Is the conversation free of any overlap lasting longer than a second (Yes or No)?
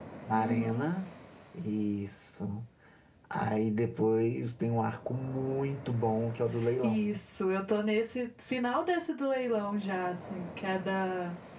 Yes